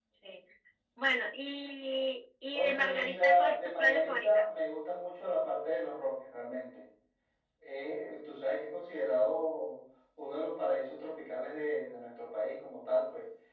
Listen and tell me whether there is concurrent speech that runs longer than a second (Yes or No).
Yes